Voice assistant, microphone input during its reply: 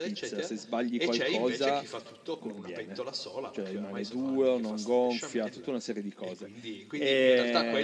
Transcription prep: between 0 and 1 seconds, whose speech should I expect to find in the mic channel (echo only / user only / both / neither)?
both